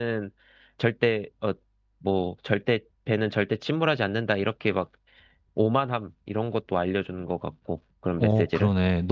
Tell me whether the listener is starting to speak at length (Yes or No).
Yes